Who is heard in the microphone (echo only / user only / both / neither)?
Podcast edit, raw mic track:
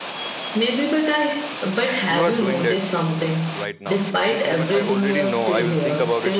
both